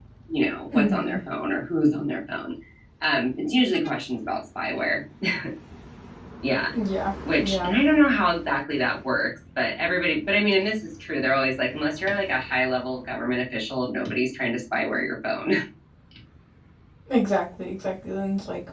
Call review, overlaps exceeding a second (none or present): none